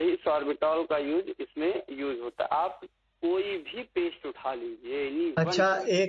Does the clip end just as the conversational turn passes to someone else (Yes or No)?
Yes